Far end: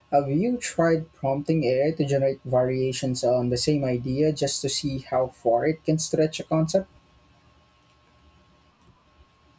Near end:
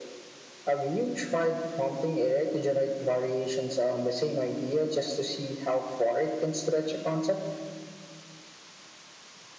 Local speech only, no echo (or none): none